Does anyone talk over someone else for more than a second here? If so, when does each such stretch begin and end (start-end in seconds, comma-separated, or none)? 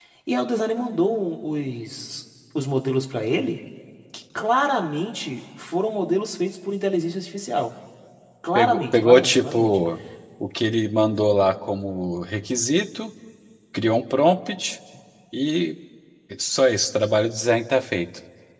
8.6-9.8